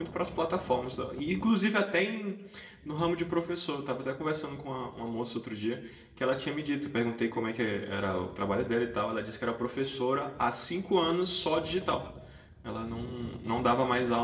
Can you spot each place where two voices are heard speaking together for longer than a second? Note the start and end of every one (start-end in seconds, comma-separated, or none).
none